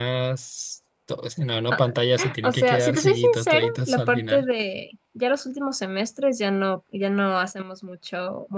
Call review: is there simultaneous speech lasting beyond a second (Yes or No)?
Yes